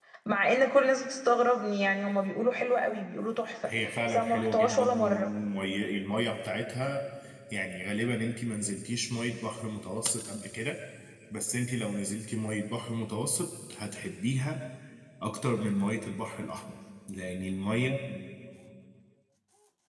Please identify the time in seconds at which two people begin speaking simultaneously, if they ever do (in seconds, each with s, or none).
3.6 s